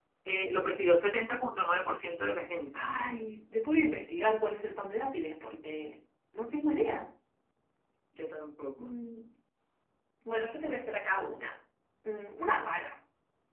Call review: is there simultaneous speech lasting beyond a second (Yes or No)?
No